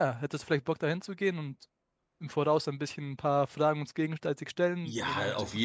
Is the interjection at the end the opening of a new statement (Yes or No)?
Yes